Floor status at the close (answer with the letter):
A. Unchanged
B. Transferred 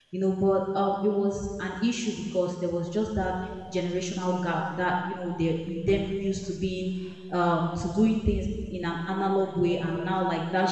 A